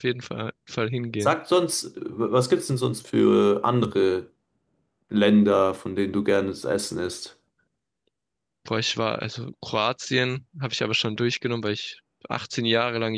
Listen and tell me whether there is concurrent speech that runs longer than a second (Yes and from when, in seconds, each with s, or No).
No